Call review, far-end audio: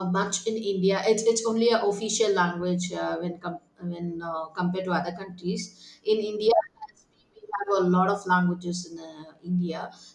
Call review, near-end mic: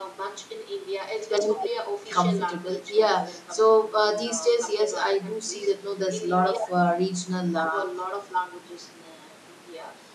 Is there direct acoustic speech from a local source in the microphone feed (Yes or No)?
Yes